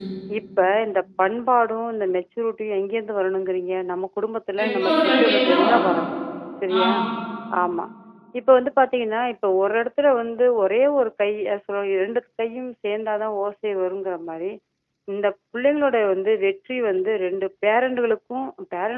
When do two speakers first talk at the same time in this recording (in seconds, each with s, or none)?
4.6 s